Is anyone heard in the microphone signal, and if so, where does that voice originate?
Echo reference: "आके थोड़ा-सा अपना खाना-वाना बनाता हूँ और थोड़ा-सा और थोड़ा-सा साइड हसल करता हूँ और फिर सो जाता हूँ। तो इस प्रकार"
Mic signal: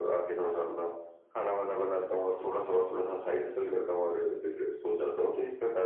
echo only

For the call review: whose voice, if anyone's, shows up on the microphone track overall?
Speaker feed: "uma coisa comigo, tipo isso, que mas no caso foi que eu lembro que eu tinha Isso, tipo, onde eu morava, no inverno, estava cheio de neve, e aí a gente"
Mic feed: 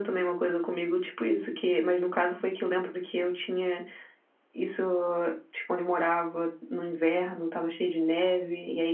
echo only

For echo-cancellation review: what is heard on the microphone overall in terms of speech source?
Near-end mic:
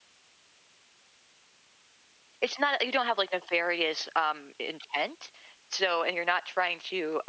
user only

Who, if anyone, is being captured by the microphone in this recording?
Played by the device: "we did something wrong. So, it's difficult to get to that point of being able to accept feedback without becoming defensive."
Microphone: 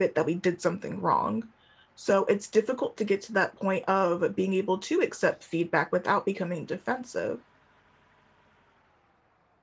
echo only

